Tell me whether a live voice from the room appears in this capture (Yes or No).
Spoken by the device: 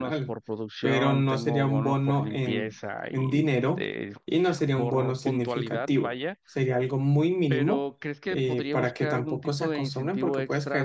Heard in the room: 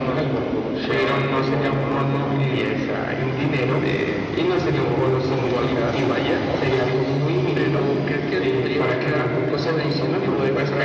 No